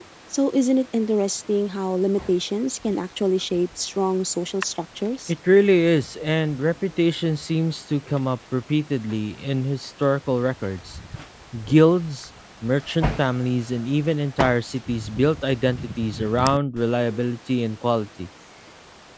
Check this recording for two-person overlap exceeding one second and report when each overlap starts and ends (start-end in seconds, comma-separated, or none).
none